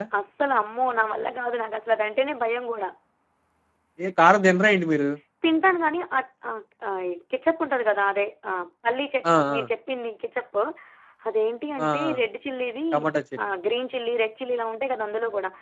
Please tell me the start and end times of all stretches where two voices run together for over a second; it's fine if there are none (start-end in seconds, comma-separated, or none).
none